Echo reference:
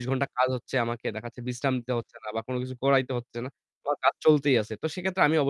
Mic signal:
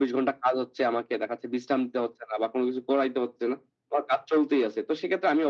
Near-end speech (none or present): none